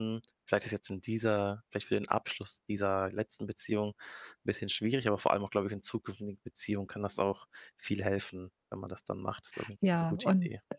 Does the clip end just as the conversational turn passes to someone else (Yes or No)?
Yes